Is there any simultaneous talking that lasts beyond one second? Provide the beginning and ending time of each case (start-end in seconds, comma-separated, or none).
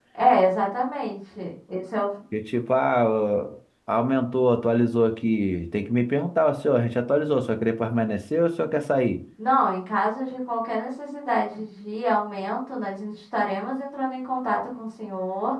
none